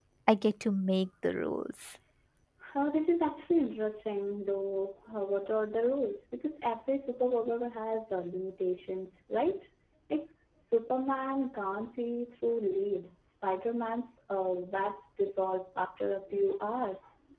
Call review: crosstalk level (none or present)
none